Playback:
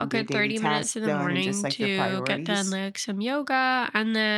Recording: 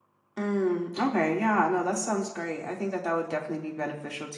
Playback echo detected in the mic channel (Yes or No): No